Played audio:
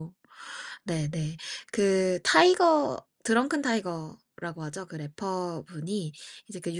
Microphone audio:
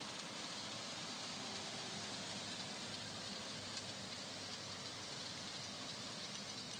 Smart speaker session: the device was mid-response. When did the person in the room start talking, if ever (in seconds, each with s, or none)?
none